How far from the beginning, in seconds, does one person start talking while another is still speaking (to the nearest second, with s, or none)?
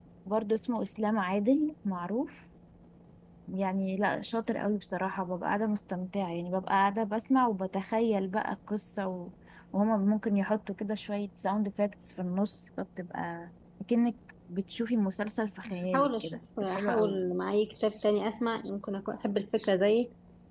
16 s